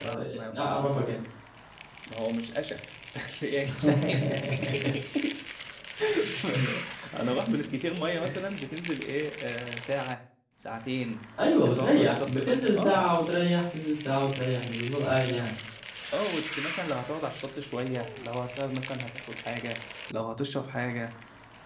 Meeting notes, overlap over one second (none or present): present